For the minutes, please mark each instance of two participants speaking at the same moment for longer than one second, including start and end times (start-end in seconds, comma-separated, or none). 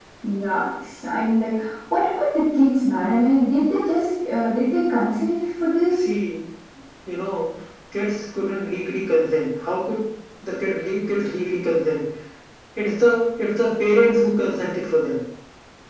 none